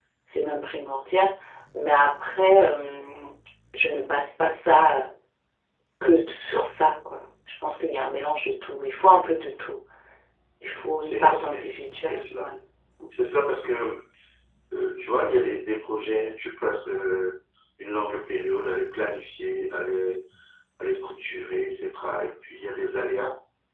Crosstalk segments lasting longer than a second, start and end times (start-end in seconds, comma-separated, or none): 11.0-12.5